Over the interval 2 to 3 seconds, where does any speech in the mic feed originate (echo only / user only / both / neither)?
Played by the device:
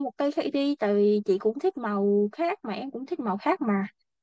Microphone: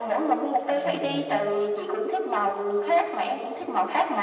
echo only